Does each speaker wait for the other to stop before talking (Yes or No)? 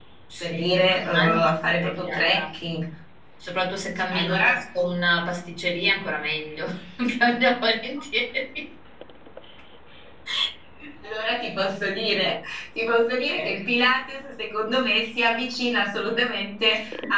No